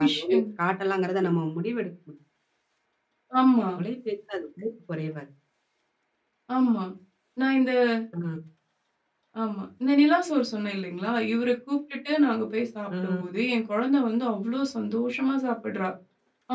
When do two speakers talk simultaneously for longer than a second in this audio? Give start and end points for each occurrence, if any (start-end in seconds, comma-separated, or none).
none